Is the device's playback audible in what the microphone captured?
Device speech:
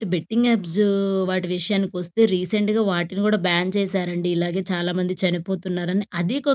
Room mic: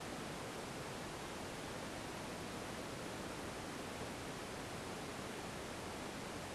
No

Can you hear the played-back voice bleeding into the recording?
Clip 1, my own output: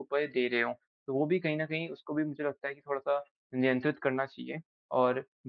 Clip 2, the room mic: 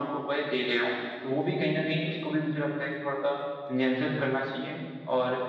Yes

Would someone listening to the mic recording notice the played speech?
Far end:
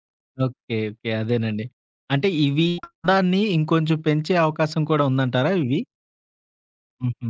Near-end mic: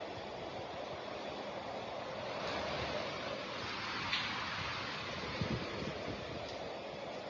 No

